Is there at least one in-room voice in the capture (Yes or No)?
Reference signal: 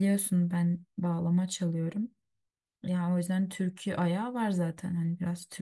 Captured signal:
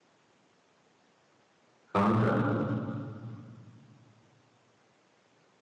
Yes